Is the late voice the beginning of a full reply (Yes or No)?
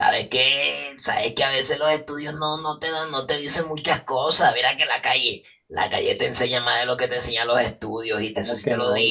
Yes